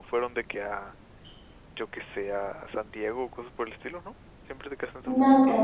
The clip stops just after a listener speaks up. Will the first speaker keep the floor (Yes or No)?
No